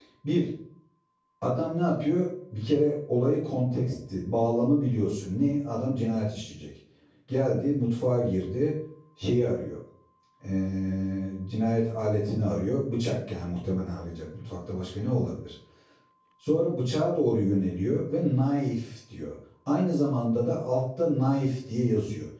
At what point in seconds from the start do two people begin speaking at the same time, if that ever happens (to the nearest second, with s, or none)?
none